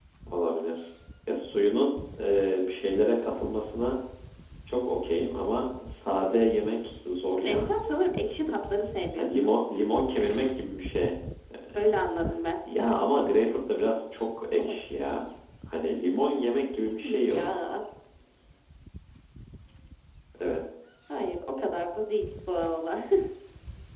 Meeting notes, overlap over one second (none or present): none